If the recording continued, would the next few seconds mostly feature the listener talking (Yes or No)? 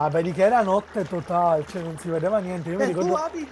Yes